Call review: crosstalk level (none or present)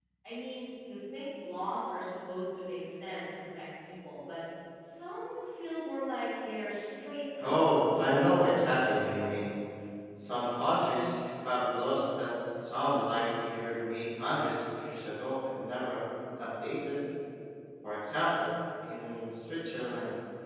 present